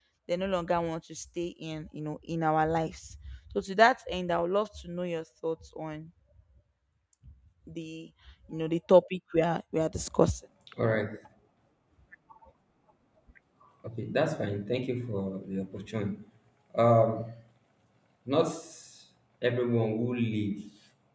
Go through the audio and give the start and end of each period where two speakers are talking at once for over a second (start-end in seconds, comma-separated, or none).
none